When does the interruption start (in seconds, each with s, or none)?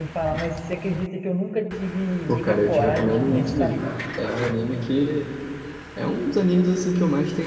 2.3 s